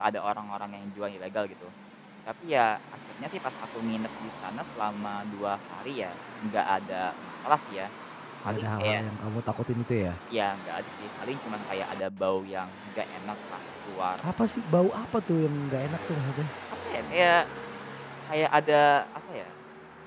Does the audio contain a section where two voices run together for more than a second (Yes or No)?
No